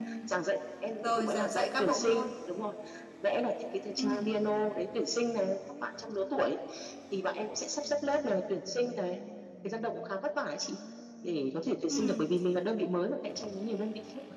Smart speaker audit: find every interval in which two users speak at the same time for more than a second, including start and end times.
1.0-2.2

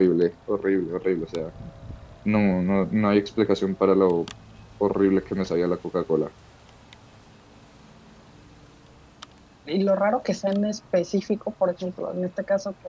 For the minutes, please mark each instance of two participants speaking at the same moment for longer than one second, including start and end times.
none

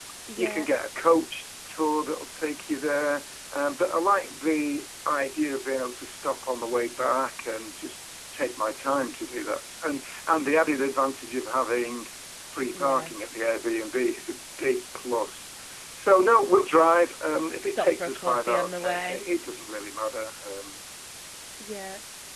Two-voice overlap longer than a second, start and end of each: 17.6-19.2

